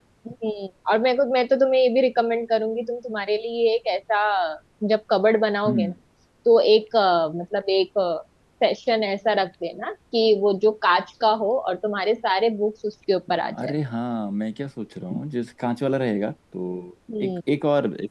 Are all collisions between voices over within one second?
Yes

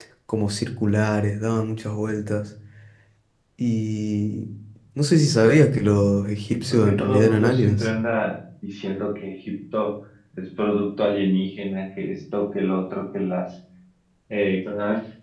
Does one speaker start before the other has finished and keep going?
Yes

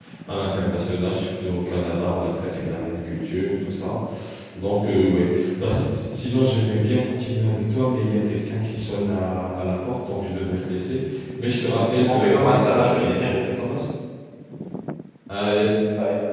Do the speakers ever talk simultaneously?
Yes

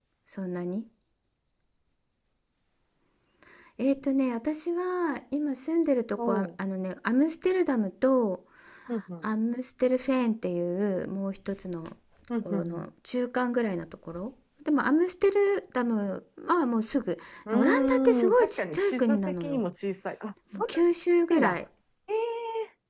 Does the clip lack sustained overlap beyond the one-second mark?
No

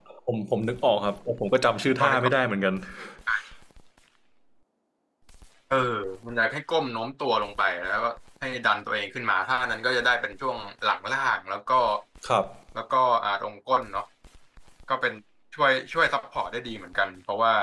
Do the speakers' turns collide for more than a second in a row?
No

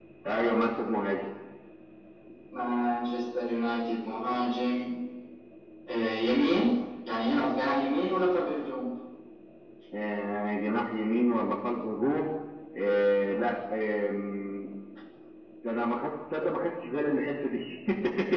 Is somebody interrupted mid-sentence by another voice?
No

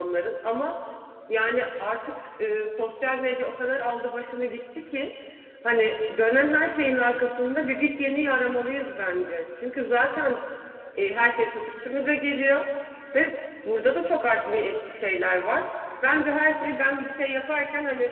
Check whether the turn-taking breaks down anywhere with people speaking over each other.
No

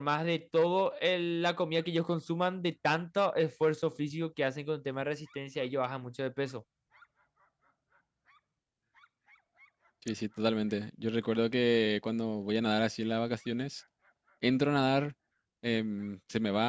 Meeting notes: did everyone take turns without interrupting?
Yes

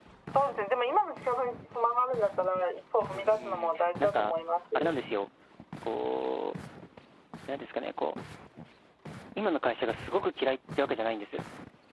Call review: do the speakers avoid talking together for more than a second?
No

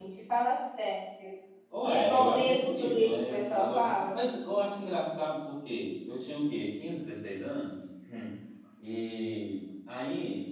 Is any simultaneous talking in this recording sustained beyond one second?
Yes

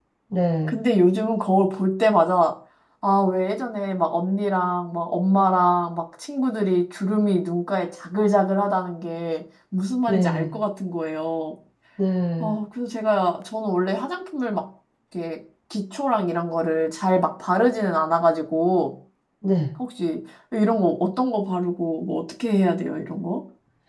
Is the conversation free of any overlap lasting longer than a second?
Yes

